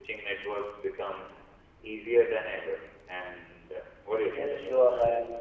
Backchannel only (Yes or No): No